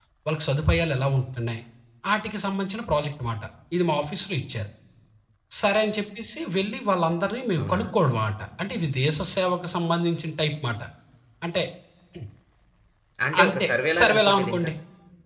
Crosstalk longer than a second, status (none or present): present